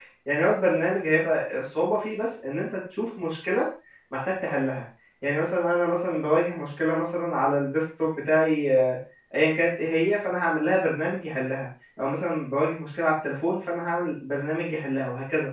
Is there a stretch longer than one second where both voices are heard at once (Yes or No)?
No